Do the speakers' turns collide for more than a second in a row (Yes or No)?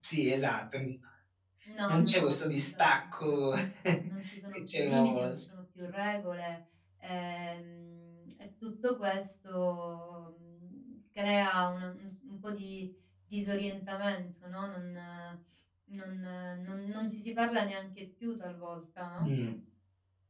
Yes